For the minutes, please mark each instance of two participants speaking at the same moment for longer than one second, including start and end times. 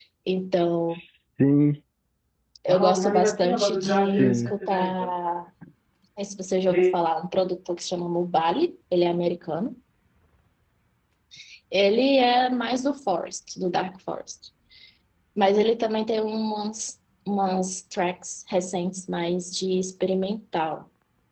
2.7-5.1

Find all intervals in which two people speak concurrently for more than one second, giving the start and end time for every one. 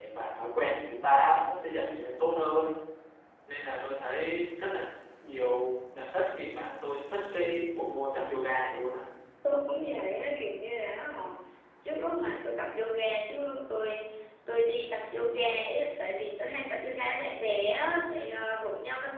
none

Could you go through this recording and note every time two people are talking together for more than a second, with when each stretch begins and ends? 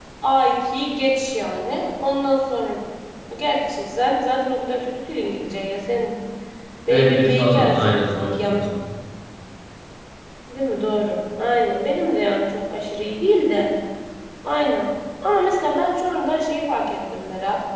6.9-8.7

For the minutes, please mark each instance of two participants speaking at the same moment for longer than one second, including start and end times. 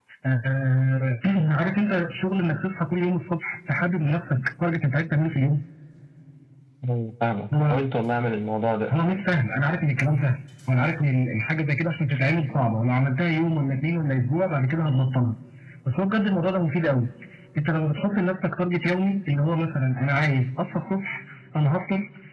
none

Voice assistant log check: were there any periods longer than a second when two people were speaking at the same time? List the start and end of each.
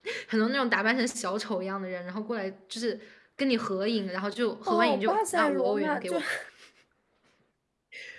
4.7-6.2

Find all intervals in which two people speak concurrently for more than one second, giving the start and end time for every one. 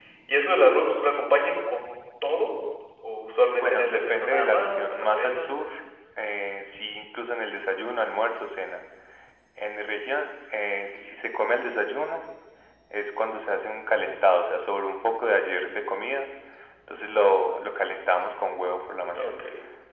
3.6-5.6

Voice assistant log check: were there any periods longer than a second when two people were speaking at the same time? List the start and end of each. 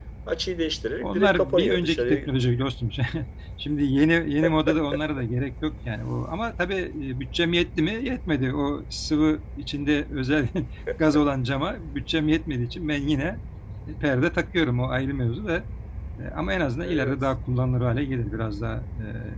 1.0-2.3

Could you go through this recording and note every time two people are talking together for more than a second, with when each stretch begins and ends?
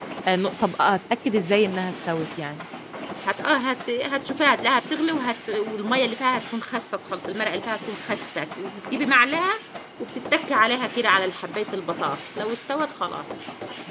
none

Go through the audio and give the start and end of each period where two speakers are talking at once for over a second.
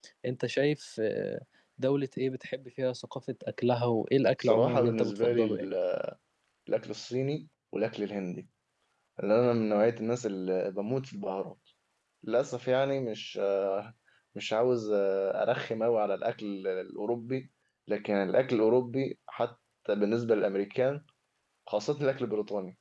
4.4-5.6

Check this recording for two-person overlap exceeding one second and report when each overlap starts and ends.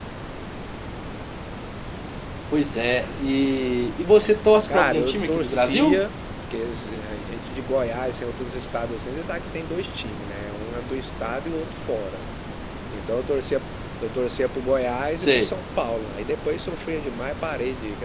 4.7-6.0

